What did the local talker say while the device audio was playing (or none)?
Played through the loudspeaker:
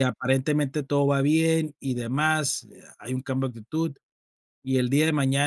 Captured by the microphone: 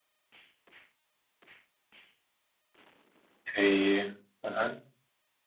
Sí. Ajá.